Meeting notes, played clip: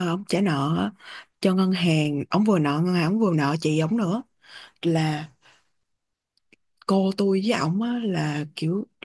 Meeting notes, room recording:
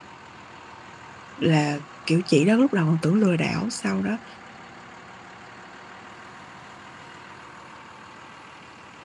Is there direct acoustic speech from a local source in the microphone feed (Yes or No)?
Yes